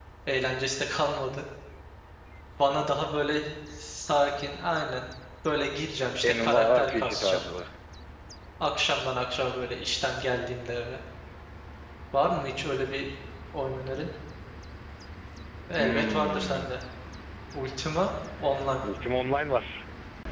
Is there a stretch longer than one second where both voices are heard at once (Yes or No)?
Yes